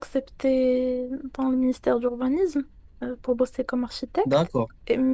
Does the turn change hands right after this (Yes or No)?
No